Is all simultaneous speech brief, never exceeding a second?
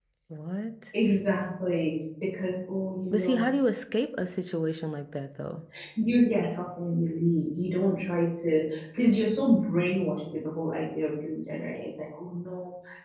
Yes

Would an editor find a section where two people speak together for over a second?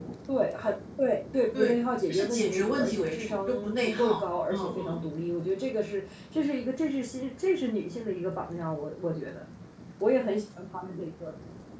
Yes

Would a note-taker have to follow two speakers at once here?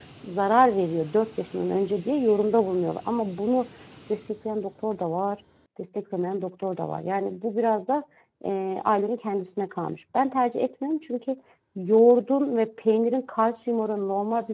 No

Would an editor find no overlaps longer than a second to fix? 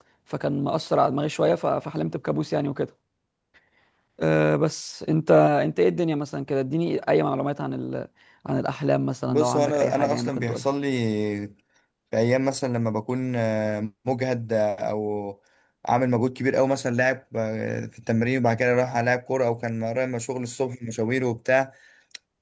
No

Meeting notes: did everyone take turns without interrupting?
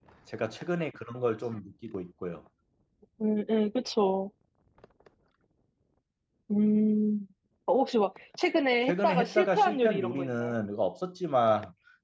No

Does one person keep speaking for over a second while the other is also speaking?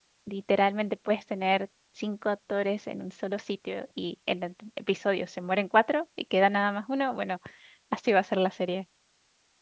No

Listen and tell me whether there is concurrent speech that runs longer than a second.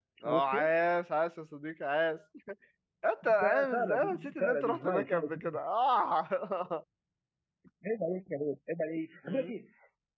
Yes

